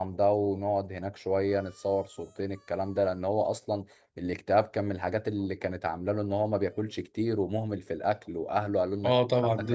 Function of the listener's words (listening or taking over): taking over